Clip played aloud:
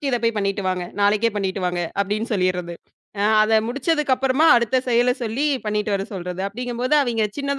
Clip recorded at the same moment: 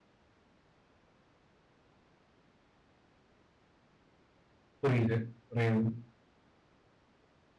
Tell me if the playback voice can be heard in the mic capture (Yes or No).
No